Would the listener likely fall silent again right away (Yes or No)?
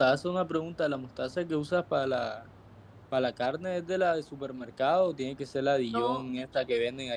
Yes